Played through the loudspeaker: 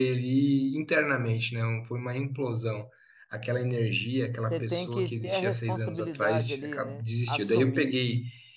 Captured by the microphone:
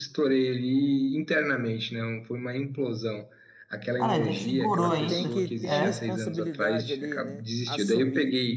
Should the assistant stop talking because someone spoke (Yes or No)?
Yes